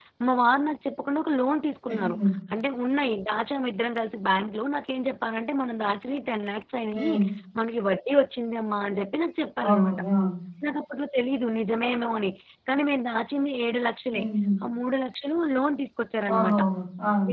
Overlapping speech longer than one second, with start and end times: none

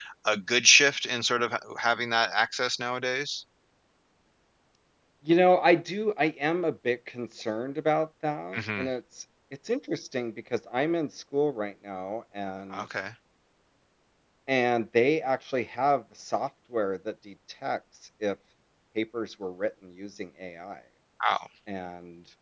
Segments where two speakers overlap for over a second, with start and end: none

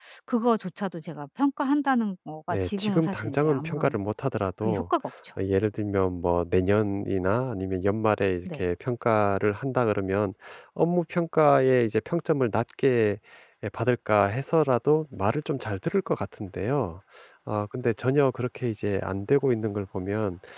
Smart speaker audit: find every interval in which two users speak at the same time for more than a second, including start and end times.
2.5-4.0

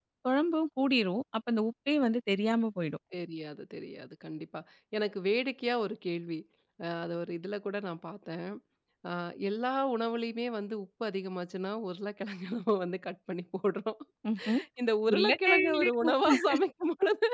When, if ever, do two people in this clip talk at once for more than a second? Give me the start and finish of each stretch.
15.1-16.3

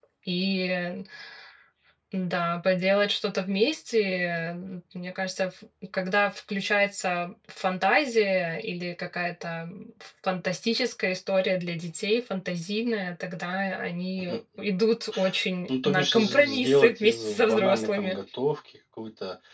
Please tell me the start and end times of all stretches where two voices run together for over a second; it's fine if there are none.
15.8-18.2

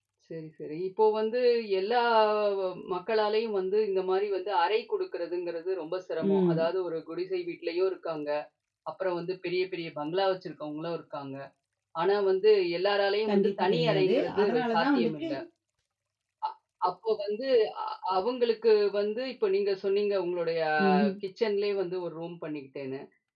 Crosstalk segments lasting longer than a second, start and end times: 13.3-15.3

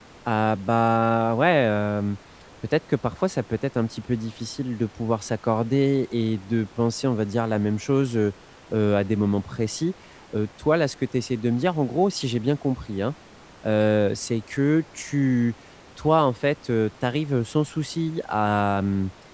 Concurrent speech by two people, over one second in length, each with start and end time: none

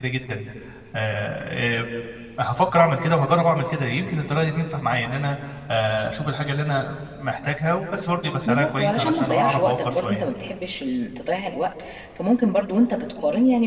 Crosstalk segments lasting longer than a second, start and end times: 8.4-10.3

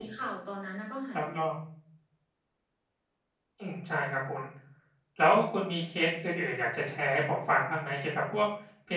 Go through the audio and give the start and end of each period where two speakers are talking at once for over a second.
none

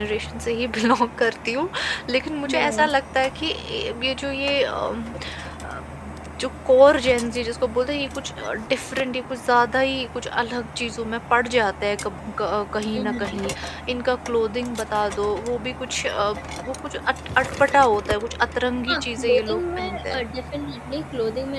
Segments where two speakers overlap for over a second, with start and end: 18.9-20.2

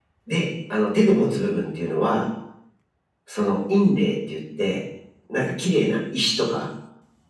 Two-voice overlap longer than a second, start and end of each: none

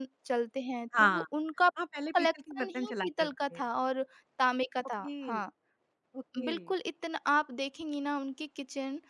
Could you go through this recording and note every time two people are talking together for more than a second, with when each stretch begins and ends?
2.2-3.6

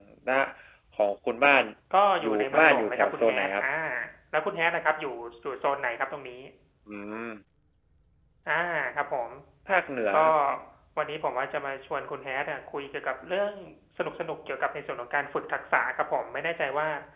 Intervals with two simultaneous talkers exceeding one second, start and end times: 2.2-3.6

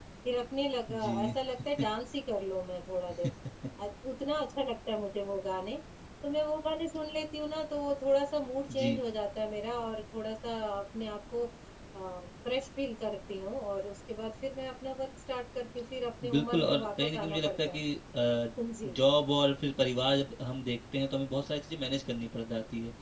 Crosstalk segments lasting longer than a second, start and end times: 16.4-17.8

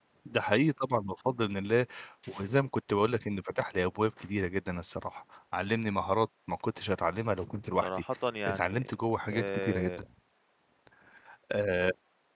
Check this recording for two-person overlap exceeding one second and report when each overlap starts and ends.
8.5-9.9

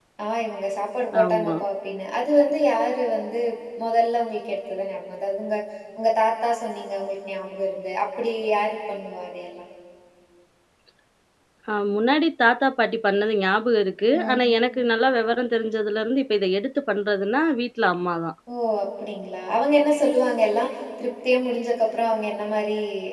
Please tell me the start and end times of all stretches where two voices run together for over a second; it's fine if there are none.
none

